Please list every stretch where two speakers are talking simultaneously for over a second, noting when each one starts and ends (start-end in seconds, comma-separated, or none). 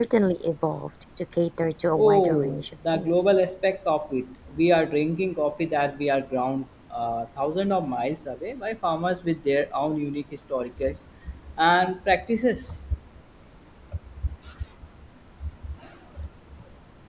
2.0-3.2